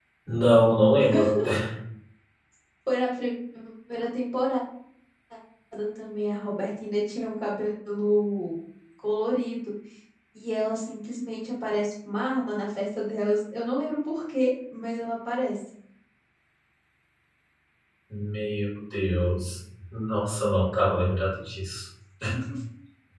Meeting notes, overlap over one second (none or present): none